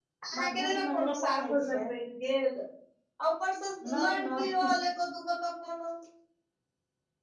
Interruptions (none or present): present